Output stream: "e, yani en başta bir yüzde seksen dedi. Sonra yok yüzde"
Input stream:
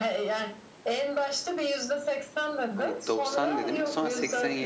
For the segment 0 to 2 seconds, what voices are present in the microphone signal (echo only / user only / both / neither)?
echo only